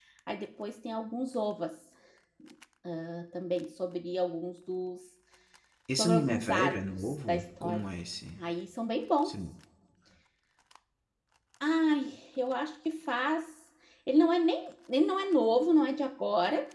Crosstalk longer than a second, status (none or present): present